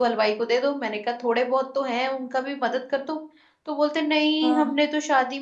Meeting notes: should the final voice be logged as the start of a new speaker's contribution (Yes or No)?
No